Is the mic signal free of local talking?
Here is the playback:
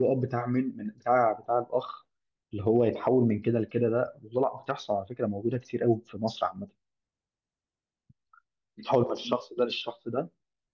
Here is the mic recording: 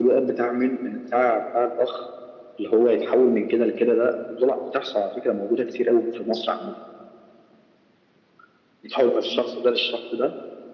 Yes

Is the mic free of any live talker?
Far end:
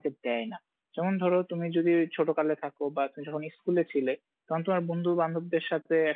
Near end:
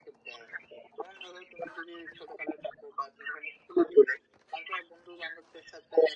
Yes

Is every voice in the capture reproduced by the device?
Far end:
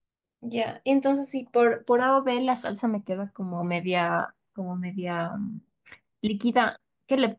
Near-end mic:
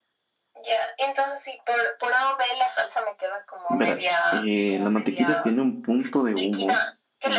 No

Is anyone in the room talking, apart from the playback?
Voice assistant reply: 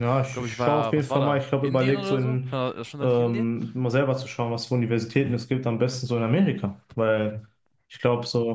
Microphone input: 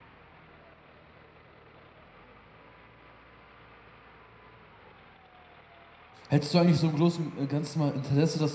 Yes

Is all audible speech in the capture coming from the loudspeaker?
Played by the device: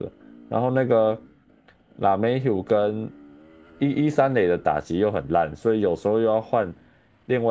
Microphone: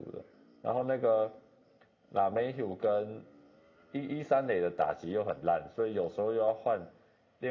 Yes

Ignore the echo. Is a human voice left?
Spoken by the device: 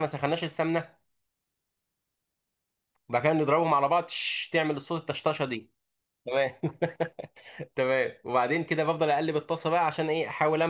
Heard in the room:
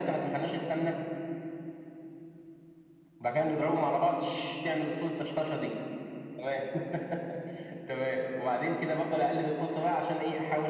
No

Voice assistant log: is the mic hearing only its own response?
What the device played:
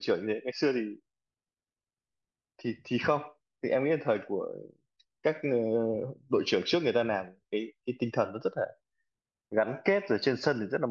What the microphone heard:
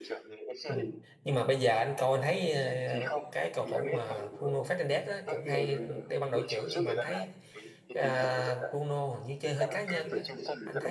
No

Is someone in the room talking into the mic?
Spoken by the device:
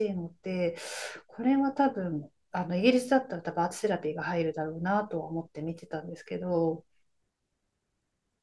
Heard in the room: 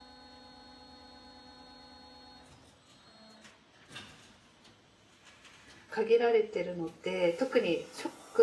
Yes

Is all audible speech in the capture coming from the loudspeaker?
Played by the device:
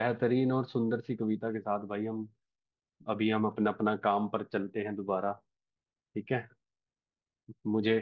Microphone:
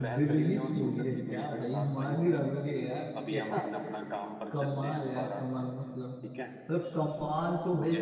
No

